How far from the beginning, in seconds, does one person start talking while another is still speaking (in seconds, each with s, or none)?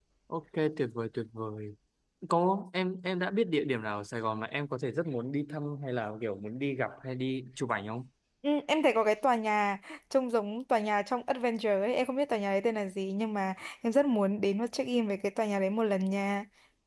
none